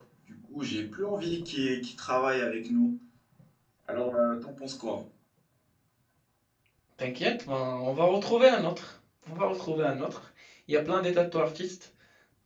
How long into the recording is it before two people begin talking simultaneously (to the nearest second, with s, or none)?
none